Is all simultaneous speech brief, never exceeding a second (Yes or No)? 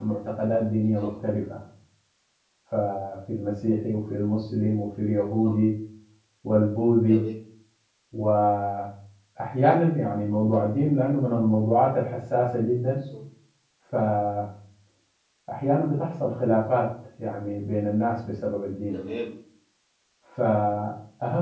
Yes